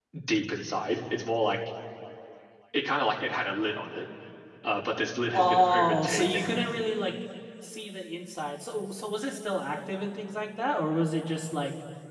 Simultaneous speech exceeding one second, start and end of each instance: 5.3-6.6

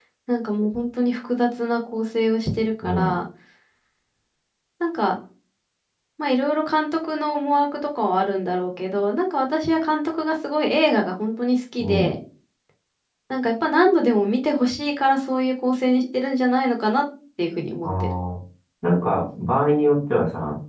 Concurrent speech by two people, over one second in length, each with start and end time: none

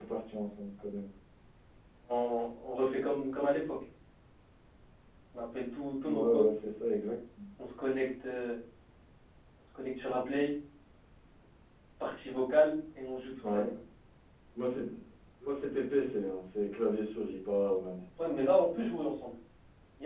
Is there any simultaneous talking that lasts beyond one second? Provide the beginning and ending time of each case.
none

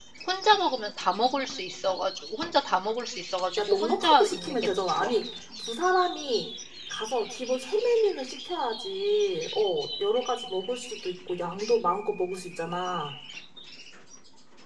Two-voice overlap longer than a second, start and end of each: 3.6-5.1

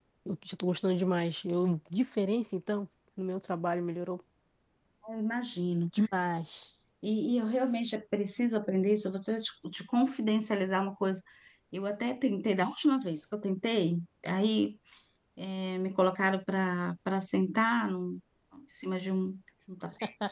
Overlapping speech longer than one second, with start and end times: none

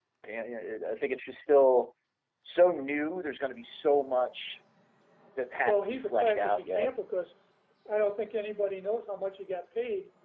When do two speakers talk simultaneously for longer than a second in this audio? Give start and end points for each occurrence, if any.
5.7-6.9

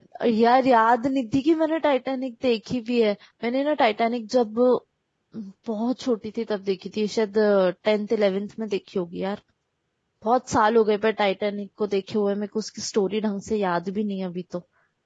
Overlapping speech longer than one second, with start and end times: none

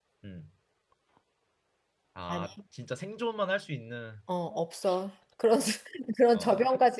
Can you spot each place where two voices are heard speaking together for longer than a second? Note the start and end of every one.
none

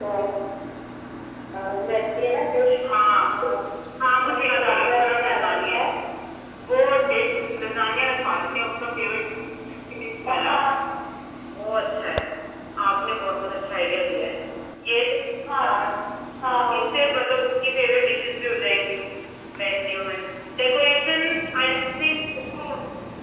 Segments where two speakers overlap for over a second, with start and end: 4.2-5.8

